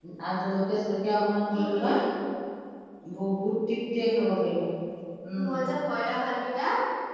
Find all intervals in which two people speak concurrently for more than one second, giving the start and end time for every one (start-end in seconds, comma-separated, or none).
none